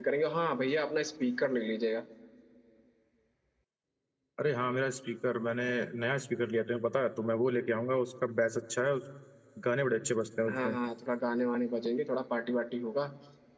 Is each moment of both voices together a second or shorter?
Yes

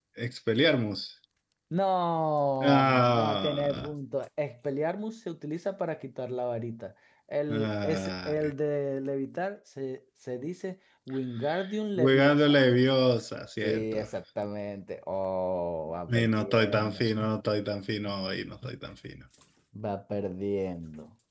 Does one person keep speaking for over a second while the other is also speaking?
Yes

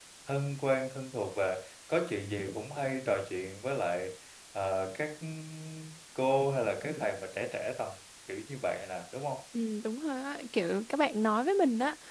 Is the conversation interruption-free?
Yes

